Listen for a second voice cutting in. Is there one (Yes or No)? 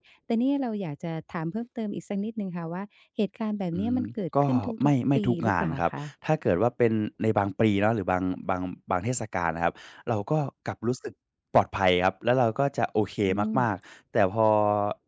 Yes